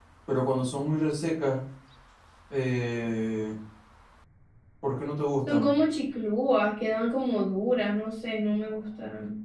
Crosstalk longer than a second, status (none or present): none